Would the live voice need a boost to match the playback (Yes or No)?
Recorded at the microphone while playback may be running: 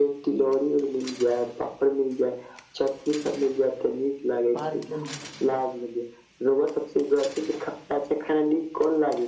Yes